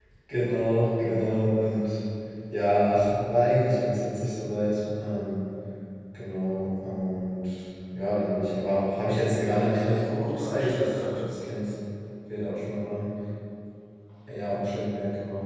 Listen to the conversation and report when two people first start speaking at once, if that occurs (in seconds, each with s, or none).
9.3 s